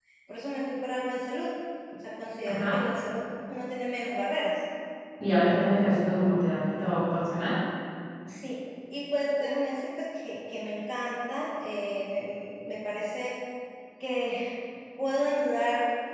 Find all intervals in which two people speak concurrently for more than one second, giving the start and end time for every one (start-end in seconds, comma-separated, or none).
none